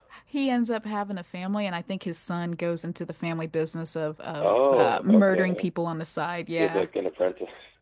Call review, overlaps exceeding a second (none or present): present